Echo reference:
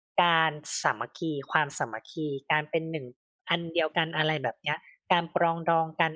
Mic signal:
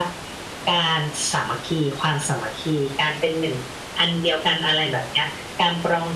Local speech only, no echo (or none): none